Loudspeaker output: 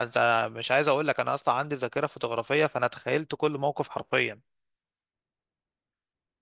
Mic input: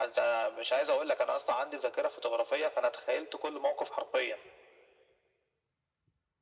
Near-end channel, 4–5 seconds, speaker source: echo only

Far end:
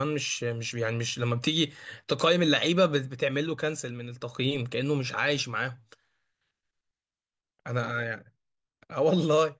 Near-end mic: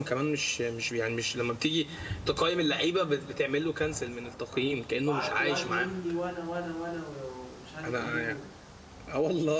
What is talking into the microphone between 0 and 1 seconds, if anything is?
echo only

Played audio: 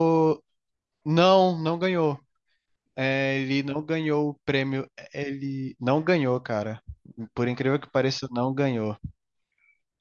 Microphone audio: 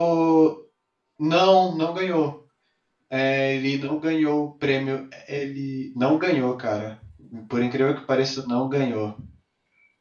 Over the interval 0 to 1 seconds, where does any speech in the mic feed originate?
echo only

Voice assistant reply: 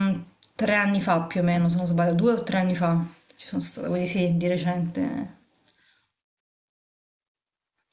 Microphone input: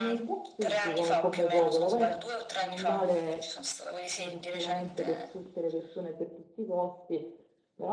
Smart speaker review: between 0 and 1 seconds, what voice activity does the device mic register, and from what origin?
both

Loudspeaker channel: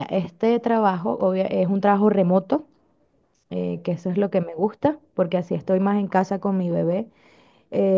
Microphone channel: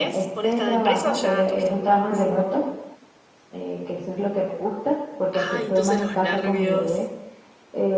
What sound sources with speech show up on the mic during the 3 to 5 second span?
echo only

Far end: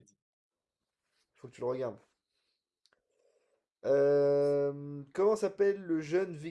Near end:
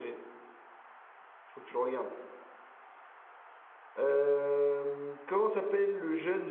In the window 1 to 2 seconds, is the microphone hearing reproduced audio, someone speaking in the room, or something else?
echo only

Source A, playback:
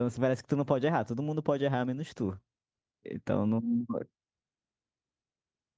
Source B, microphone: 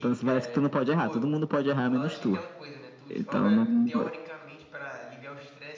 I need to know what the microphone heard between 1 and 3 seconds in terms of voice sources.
both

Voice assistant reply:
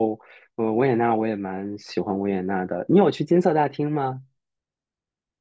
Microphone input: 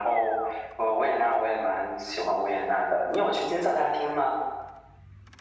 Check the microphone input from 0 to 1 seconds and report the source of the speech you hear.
echo only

